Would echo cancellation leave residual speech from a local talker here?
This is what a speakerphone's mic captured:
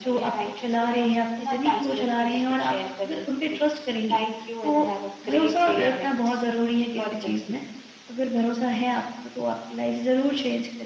No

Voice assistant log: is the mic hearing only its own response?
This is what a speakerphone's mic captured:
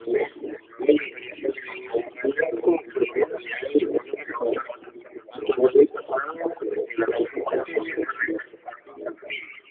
Yes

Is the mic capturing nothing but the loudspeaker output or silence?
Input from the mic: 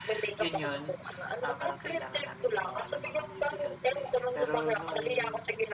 No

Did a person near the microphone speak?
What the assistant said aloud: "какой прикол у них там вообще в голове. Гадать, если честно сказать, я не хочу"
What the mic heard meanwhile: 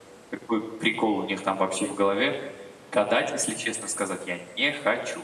No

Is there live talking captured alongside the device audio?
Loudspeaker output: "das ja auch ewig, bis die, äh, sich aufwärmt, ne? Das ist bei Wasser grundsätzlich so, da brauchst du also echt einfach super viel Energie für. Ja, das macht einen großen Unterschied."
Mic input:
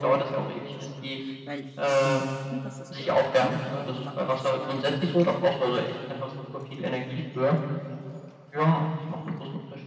Yes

